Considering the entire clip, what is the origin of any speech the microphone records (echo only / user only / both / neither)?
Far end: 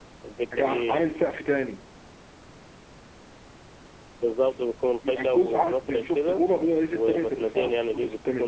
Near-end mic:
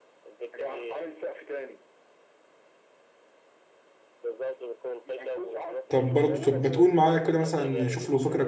both